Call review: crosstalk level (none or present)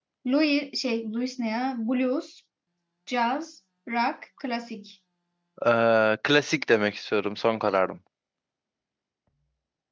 none